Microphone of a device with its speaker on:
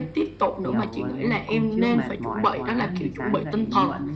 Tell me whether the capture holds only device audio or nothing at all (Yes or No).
No